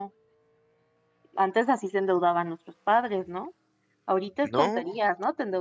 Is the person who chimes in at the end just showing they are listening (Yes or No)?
Yes